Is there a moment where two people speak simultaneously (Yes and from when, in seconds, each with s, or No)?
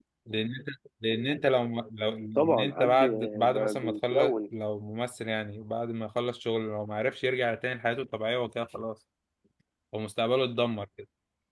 Yes, from 2.4 s